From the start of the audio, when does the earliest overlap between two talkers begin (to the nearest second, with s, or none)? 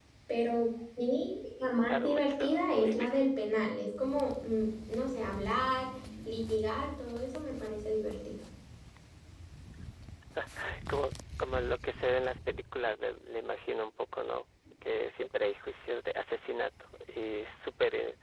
2 s